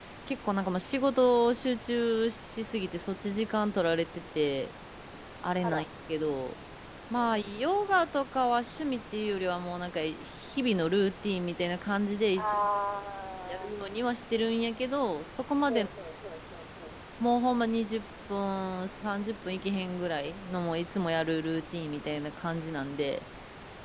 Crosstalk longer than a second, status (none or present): none